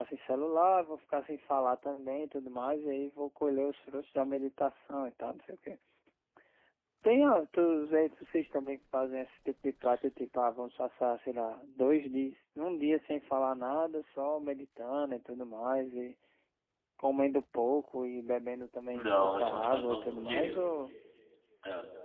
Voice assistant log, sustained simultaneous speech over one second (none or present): present